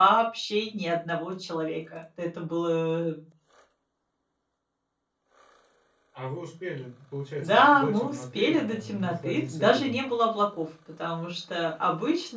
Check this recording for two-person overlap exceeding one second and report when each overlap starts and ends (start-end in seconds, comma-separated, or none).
7.4-10.0